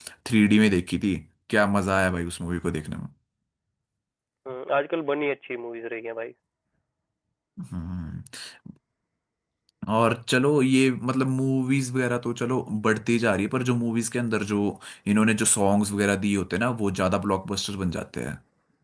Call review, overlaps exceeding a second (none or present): none